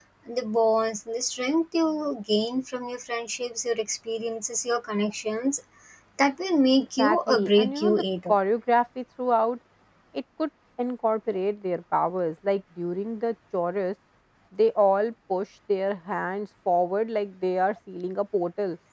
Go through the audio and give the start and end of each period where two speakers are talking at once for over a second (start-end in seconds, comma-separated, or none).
6.8-8.4